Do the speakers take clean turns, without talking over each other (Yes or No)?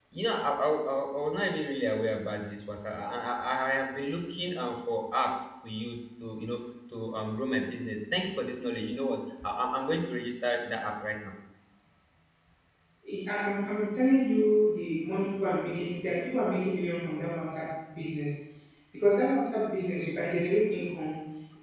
Yes